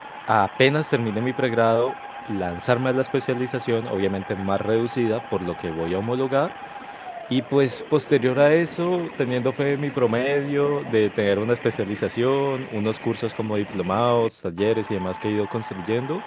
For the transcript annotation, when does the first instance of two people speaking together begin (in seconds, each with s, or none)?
none